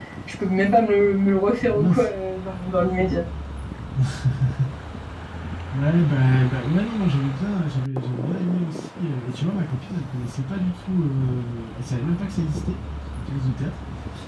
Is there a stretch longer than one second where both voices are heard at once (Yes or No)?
No